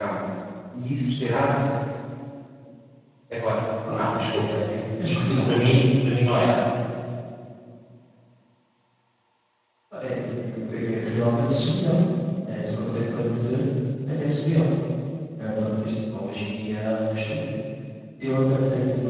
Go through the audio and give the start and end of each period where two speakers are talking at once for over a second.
3.9-5.7

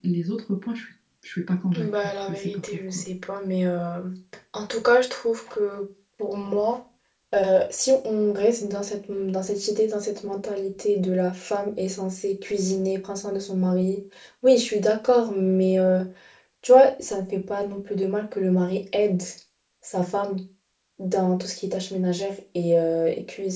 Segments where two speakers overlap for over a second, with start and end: 1.8-3.0

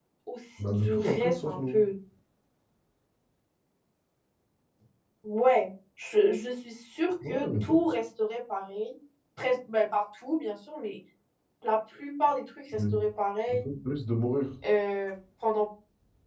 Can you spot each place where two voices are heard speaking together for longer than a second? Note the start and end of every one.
0.6-1.8

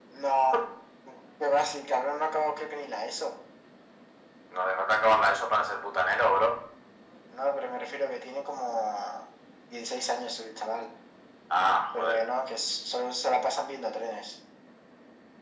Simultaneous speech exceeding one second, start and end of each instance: none

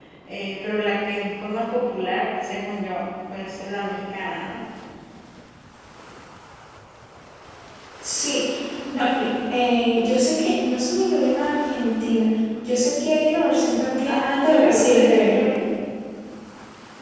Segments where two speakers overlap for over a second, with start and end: 14.0-15.4

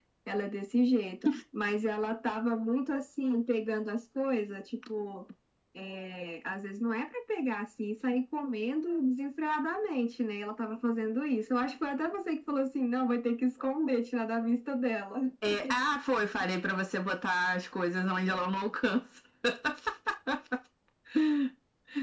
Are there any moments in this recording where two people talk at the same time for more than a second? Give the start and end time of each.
none

